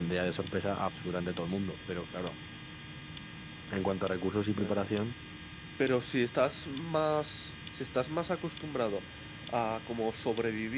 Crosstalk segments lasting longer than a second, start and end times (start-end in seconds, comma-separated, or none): none